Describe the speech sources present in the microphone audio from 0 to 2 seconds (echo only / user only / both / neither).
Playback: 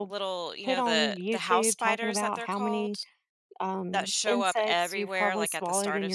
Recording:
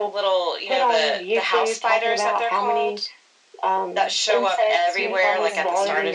echo only